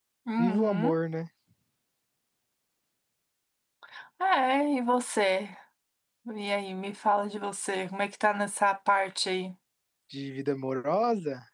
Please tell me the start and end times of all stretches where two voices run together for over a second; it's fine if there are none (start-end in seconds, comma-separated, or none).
none